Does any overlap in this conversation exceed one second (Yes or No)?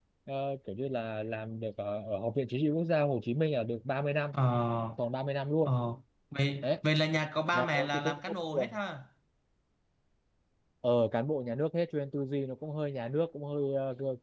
Yes